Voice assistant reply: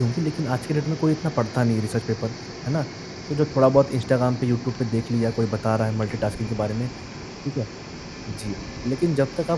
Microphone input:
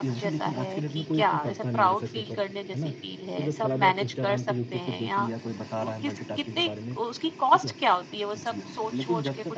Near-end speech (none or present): present